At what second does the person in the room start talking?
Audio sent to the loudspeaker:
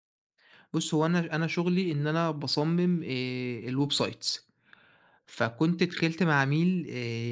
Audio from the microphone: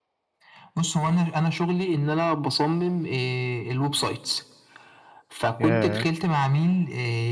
5.6 s

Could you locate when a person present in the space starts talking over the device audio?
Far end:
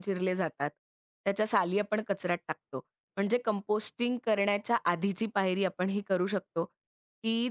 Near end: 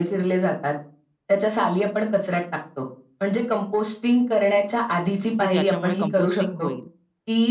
5.4 s

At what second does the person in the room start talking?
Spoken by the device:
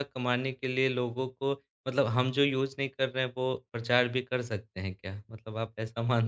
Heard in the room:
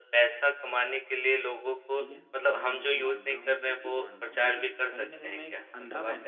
2.0 s

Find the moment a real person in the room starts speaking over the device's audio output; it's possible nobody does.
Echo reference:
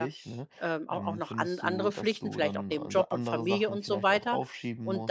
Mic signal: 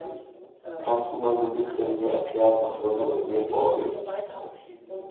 0.8 s

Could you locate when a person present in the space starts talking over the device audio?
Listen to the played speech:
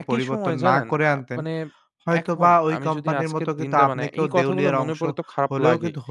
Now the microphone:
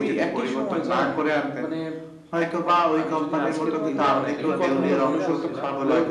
3.2 s

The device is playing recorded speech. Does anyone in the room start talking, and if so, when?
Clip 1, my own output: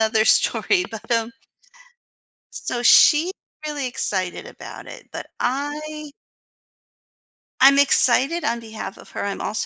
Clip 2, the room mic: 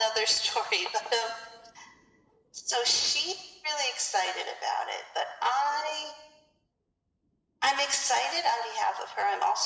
none

